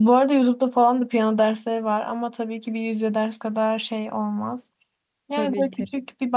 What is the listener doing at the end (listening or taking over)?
listening